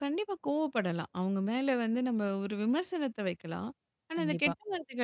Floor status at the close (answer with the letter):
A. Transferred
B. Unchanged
B